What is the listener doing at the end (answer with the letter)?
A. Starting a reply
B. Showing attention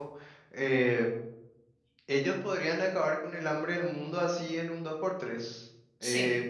B